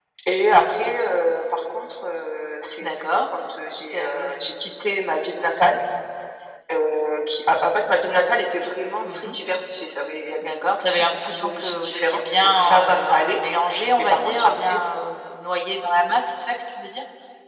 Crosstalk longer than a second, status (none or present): present